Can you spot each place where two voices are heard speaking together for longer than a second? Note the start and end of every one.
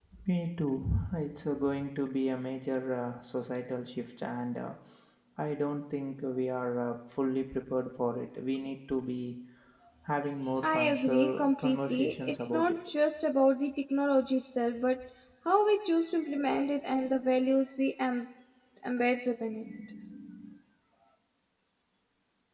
10.6-12.8

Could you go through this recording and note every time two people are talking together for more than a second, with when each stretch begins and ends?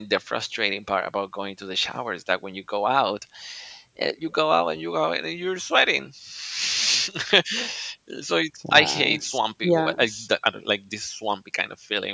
8.7-10.3

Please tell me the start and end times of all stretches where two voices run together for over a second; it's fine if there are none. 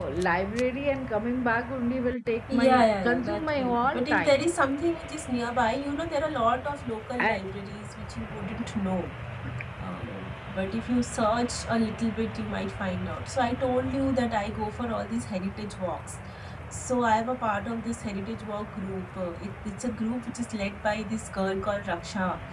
2.5-4.5

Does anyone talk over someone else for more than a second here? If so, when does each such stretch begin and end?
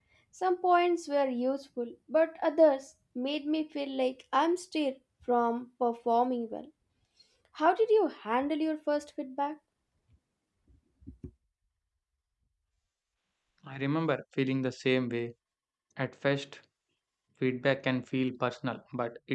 none

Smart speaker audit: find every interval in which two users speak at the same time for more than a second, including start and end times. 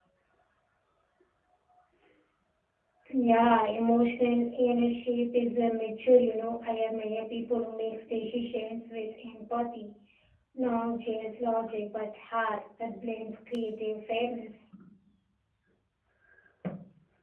none

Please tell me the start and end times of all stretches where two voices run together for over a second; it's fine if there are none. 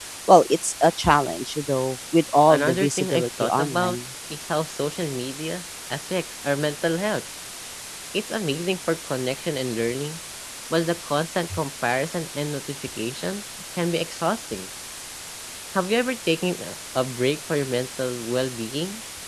2.5-4.0

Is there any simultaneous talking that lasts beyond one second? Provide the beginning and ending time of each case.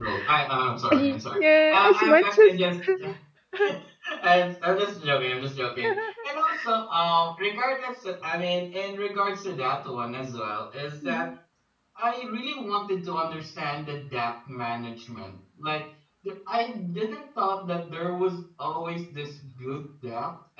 0.9-2.6

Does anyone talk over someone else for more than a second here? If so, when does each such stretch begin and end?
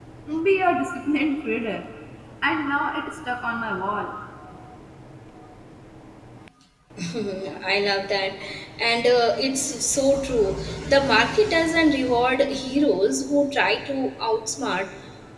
none

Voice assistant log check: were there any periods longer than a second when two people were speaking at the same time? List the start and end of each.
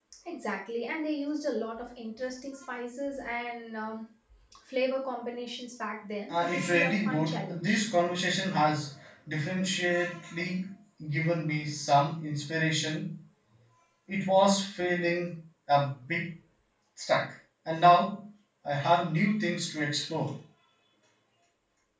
6.3-7.8

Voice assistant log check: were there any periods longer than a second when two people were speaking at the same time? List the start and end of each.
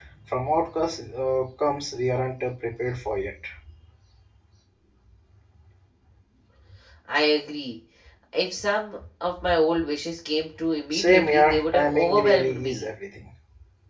10.9-12.9

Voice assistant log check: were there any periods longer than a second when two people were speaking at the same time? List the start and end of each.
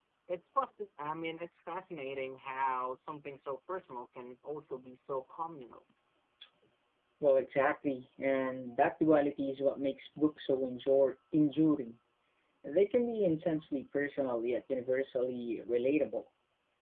none

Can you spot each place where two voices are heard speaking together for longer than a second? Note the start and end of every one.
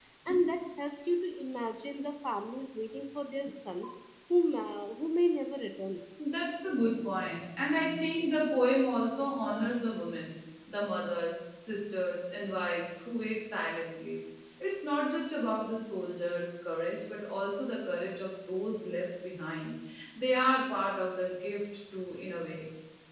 none

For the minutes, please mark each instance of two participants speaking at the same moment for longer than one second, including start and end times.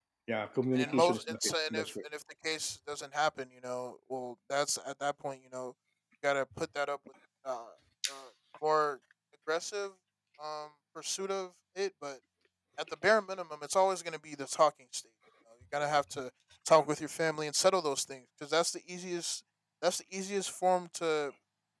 0.7-2.0

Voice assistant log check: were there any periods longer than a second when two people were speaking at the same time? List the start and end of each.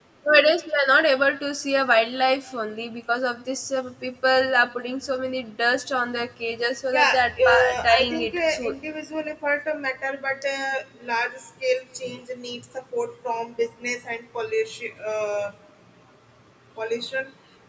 6.9-8.7

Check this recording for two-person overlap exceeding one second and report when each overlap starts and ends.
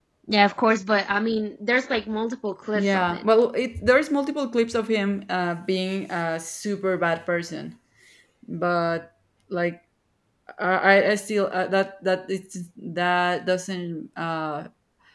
none

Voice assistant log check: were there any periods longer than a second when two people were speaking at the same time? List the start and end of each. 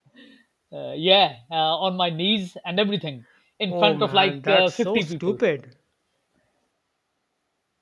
3.7-5.4

